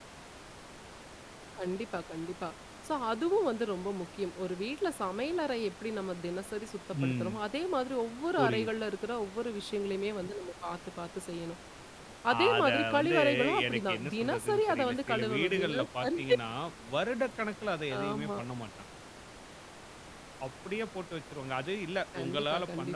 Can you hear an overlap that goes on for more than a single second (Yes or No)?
Yes